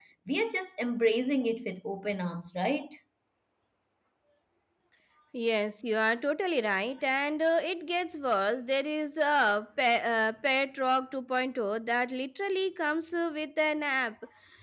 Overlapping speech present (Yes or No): No